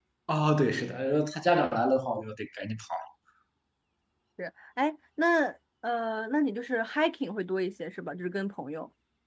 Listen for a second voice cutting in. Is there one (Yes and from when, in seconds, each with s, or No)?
No